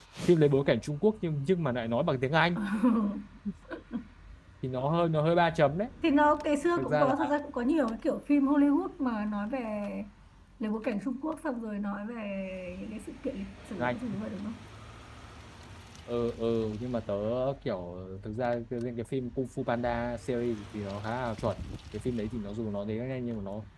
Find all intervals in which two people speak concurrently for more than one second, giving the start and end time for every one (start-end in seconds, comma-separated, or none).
none